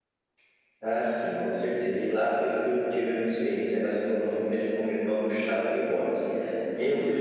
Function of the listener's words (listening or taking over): listening